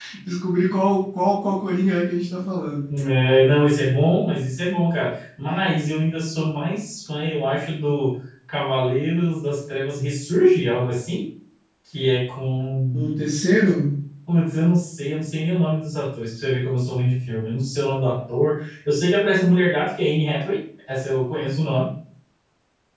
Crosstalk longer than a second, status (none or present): none